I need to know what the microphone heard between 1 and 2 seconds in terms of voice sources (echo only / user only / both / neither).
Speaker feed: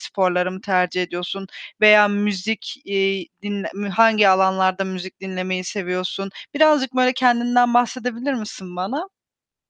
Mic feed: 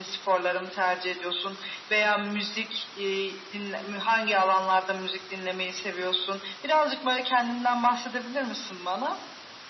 echo only